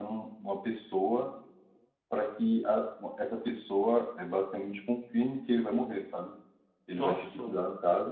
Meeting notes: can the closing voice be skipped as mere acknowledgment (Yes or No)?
Yes